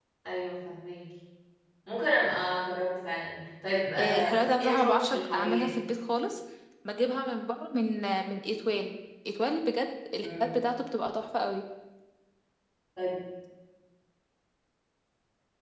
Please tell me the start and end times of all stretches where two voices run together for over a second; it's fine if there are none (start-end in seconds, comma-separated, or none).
4.0-5.7